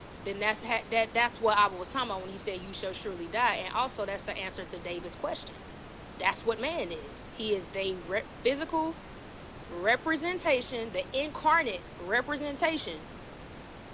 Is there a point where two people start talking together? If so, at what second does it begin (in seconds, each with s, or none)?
none